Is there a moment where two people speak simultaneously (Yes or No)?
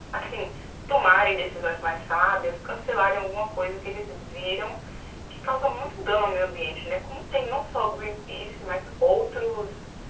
No